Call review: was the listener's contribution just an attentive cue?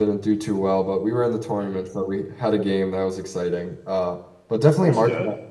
Yes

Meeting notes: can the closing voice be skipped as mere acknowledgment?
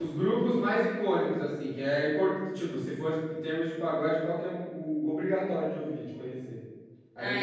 No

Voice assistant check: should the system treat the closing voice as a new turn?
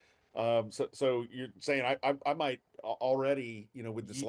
No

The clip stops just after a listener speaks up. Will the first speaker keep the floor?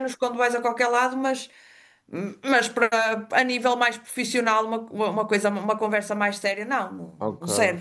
No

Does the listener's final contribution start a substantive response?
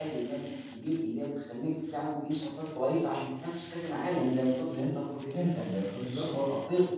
No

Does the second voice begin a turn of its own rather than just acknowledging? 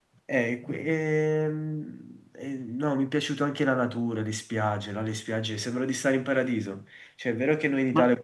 No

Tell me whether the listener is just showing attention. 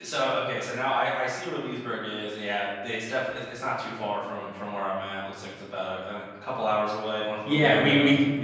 No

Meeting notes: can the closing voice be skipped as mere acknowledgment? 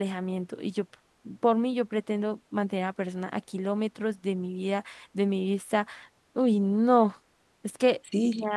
No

